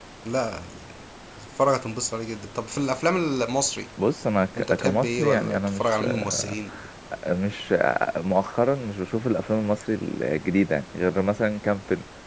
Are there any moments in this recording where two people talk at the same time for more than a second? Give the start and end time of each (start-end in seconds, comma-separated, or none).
4.6-6.6